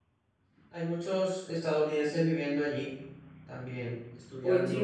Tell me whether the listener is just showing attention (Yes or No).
No